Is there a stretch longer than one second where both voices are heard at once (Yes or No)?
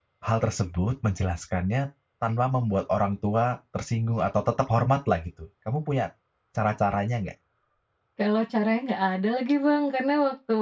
No